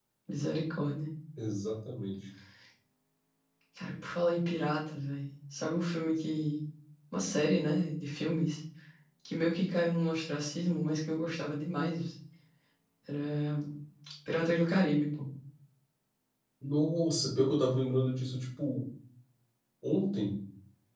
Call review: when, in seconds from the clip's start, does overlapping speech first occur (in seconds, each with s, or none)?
none